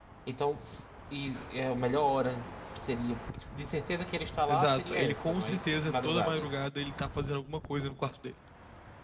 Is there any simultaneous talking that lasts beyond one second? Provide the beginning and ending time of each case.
4.5-6.5

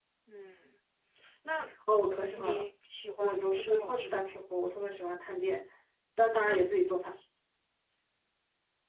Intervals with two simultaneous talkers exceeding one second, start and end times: 3.2-4.4

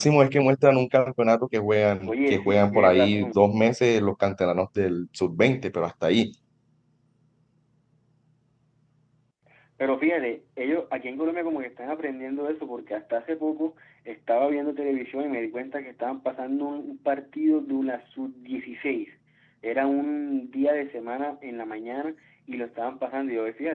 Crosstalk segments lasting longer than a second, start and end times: 2.1-3.4

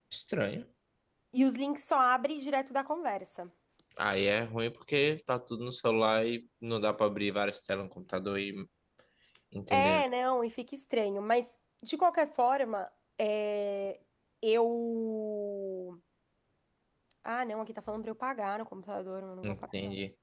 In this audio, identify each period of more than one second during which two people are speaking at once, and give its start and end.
none

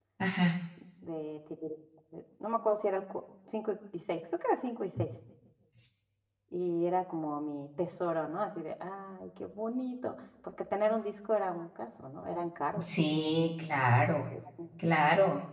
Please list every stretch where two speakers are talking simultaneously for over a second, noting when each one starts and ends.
none

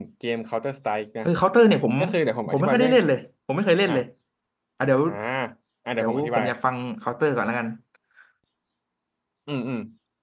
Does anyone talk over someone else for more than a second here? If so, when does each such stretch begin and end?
none

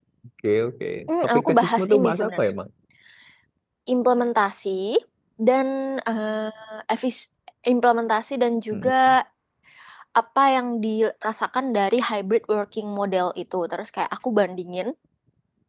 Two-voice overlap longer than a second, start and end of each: 1.1-2.5

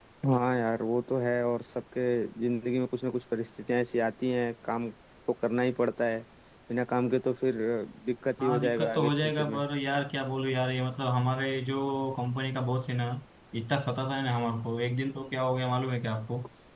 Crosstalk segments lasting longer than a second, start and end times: 8.4-9.6

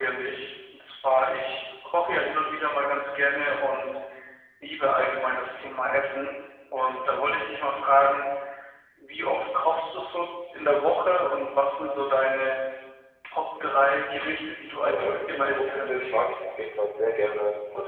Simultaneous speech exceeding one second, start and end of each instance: 14.8-16.1

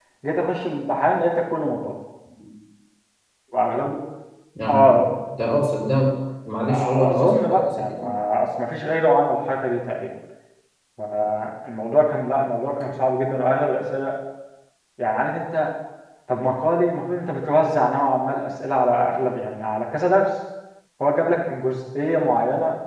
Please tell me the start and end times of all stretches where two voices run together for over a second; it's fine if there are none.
6.7-8.0

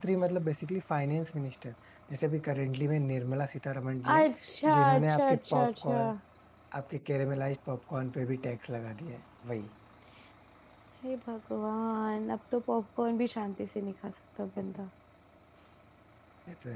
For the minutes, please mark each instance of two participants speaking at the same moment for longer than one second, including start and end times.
4.7-6.0

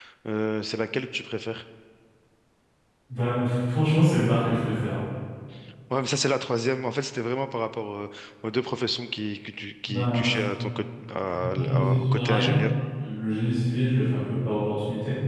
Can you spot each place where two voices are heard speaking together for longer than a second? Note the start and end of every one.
11.2-12.6

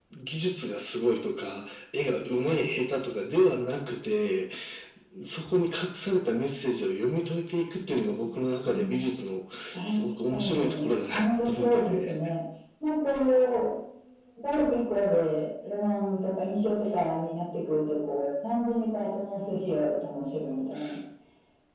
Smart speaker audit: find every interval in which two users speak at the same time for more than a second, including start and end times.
9.8-12.1

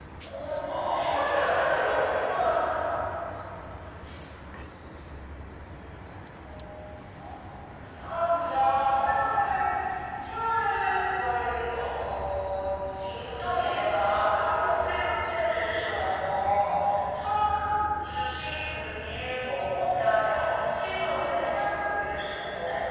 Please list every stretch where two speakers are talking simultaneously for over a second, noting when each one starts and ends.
0.8-2.5

